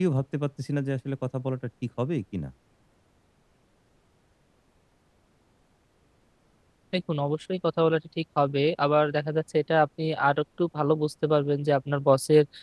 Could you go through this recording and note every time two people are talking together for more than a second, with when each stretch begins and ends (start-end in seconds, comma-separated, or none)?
none